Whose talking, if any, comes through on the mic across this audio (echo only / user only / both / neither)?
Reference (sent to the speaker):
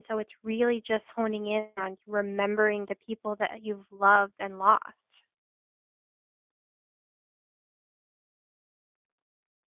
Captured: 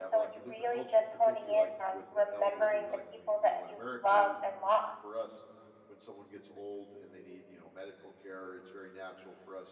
both